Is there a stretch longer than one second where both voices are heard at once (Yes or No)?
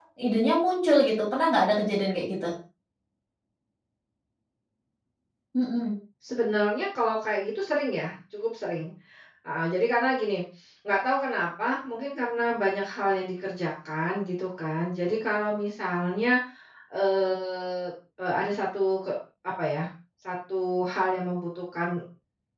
No